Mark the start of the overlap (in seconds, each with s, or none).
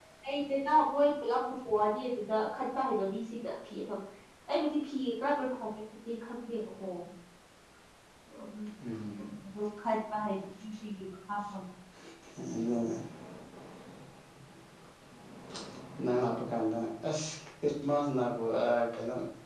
none